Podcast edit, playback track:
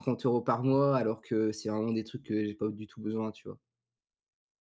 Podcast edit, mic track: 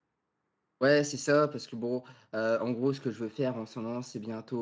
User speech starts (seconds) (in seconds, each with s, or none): 0.8 s